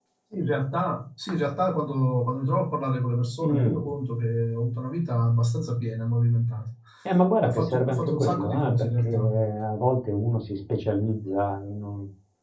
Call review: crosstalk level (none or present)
present